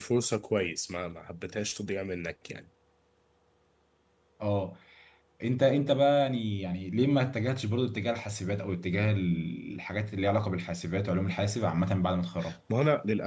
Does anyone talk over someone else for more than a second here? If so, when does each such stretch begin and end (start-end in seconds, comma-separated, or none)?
none